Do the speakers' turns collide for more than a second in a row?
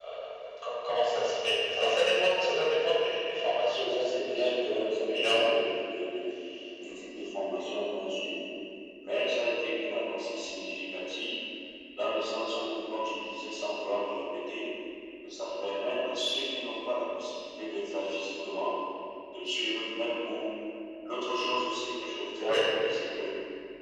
Yes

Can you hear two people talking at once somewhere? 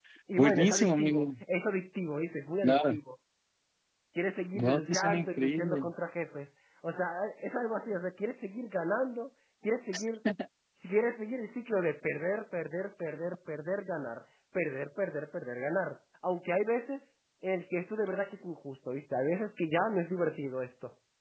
Yes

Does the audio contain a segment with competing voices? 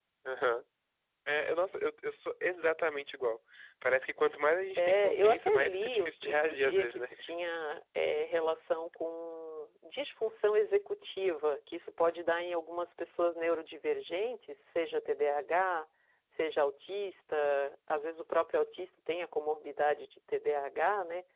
Yes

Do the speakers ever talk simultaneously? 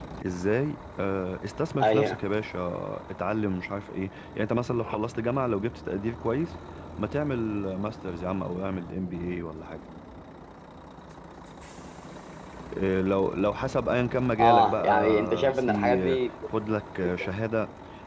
Yes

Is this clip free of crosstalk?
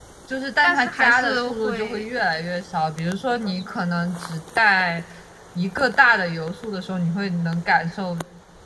No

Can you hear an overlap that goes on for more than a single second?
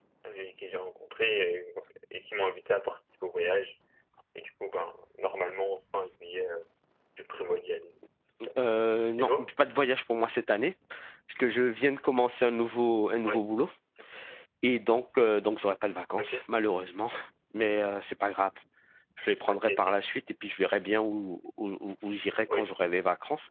No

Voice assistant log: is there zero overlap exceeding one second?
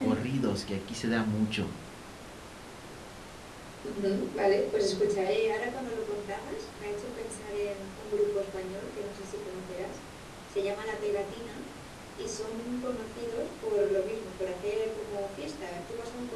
Yes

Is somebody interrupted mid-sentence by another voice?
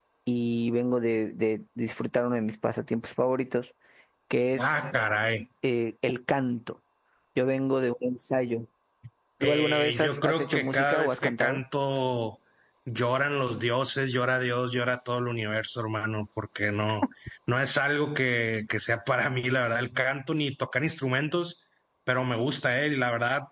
Yes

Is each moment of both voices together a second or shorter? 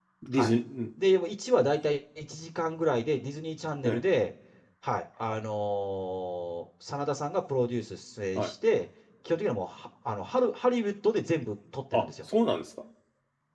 Yes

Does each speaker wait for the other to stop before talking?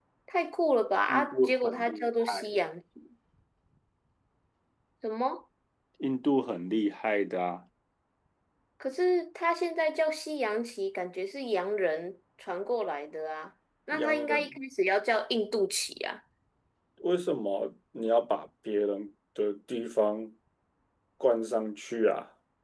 No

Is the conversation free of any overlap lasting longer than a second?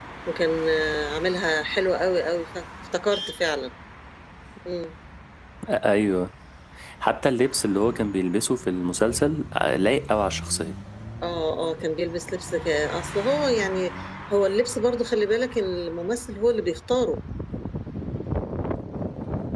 Yes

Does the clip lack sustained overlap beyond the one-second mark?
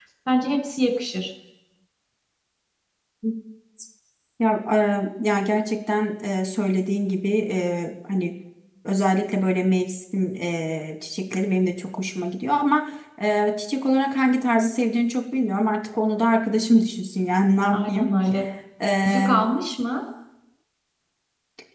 Yes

